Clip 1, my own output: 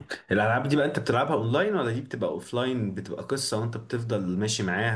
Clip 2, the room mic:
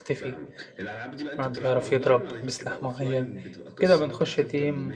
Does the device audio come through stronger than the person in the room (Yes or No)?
No